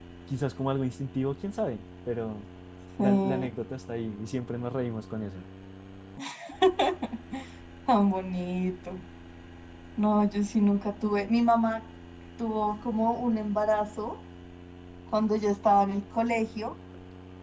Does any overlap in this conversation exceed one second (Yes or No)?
No